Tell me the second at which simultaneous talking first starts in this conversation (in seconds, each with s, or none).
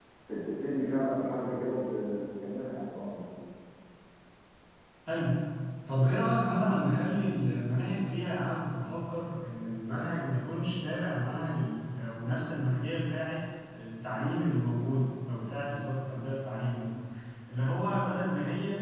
none